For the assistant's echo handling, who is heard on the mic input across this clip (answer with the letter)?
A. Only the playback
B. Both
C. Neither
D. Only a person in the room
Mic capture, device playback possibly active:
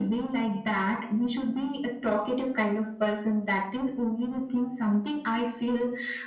A